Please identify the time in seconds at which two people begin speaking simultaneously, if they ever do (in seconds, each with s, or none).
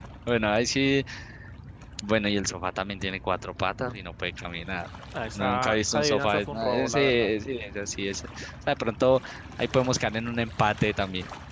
5.3 s